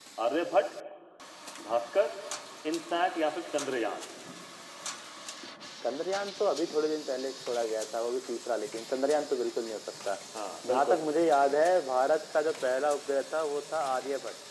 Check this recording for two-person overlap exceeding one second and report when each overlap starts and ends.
none

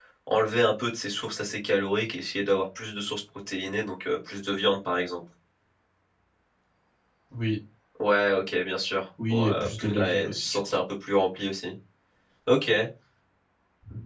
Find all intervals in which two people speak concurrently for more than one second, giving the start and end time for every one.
9.3-10.6

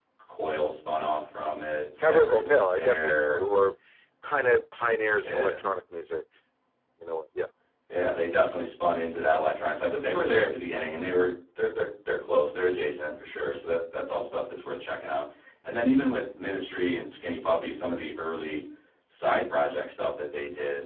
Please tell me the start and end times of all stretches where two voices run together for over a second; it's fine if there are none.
2.0-3.4

